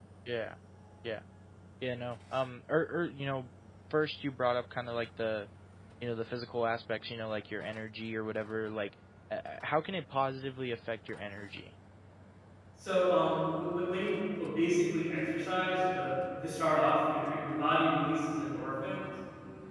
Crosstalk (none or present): none